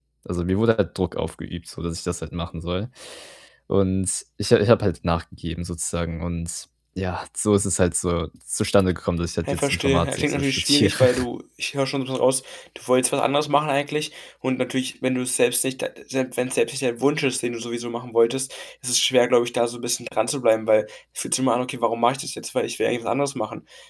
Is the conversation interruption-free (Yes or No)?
No